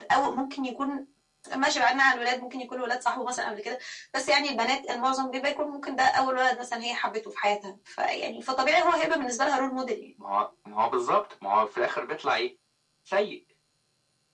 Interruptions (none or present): none